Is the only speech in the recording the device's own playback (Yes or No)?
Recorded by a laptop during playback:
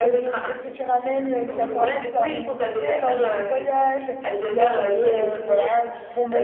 No